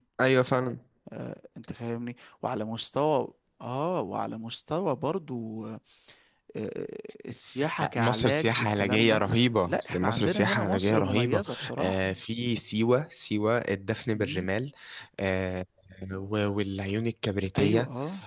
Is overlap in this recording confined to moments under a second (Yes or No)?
No